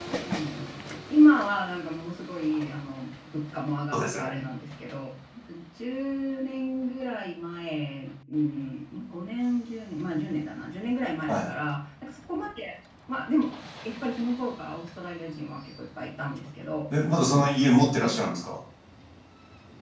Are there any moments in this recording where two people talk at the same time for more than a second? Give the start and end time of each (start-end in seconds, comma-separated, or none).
none